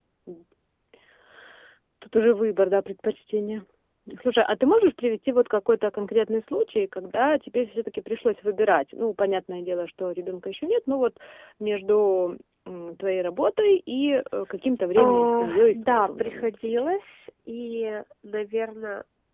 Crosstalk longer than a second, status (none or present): present